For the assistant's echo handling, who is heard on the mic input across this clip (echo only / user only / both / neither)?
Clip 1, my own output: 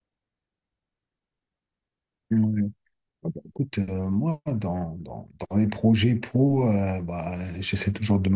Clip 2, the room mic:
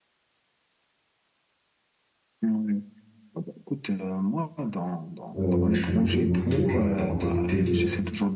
both